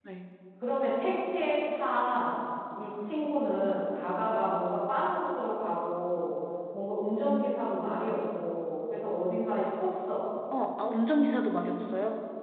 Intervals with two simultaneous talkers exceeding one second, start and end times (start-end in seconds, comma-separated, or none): none